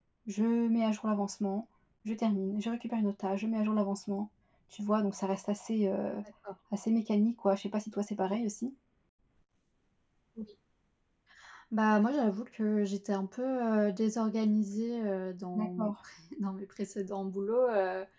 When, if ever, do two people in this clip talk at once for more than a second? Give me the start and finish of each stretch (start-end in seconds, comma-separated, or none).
none